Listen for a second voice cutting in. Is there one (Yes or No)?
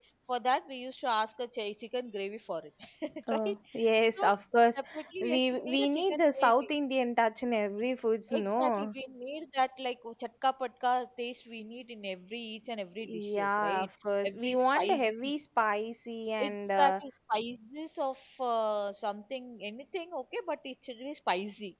Yes